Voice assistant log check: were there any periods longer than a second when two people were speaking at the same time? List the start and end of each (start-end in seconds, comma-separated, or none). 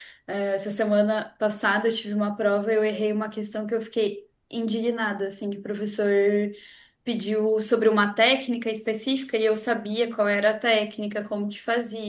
none